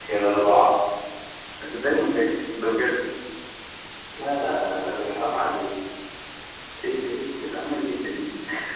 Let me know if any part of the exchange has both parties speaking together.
No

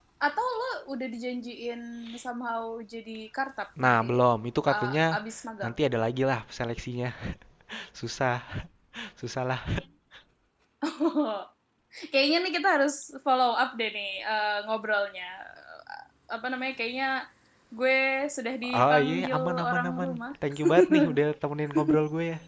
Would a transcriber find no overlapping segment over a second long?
No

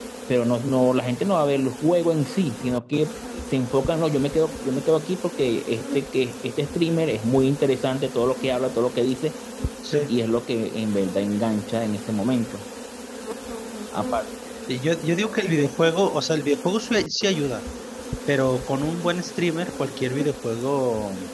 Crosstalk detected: No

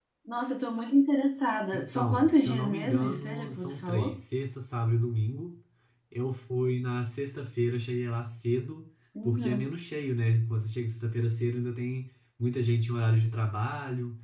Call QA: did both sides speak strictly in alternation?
No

